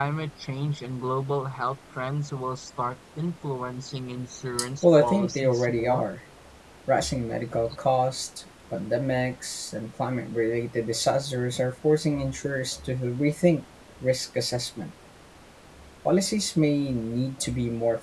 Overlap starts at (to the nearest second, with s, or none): 5 s